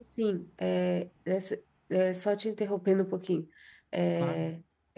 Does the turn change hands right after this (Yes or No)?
No